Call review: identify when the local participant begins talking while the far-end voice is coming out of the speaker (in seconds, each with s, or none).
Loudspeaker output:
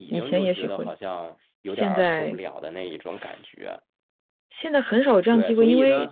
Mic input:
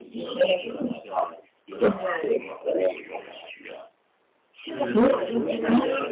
4.7 s